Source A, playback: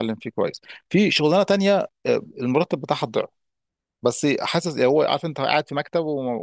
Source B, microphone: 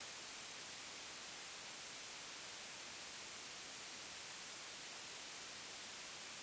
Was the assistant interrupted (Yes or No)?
No